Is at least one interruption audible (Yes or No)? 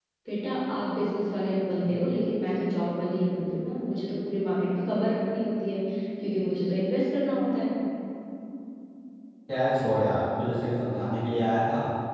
No